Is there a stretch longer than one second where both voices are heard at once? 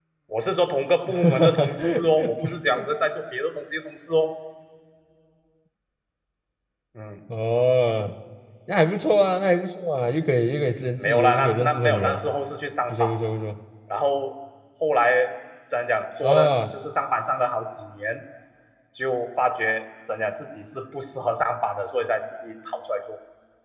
Yes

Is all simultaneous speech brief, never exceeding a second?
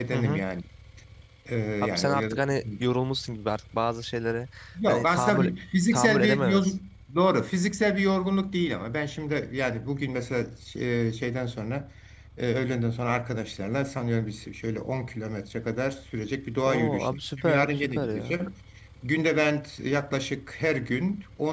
No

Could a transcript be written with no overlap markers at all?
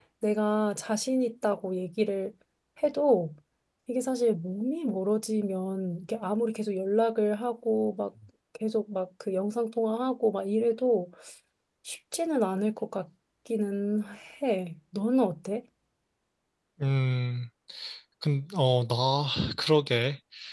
Yes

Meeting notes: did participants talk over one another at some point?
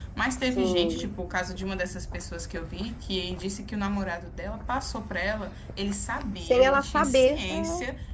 Yes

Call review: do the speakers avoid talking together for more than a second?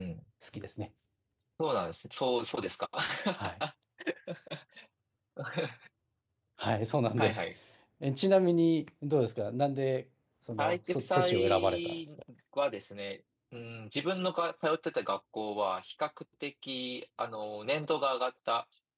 No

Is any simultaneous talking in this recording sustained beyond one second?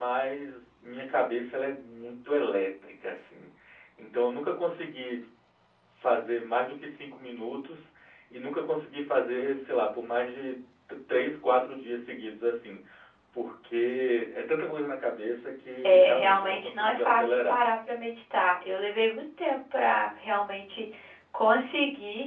Yes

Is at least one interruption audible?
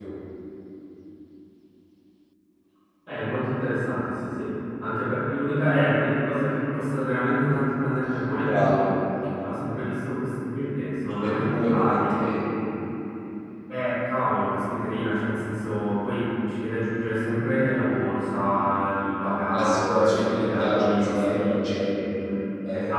Yes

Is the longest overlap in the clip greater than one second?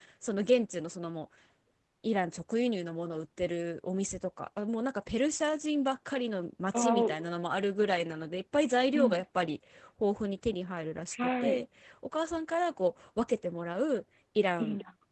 No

